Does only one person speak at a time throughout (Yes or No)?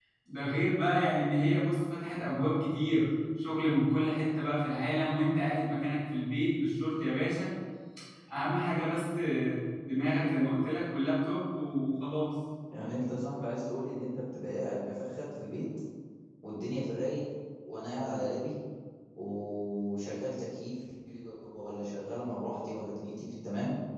Yes